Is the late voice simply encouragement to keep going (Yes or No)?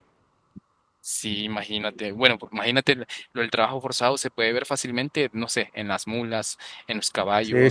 No